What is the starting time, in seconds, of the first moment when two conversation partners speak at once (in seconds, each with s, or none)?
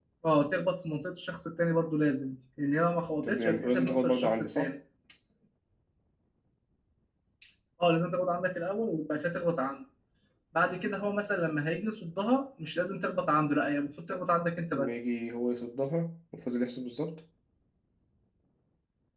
3.2 s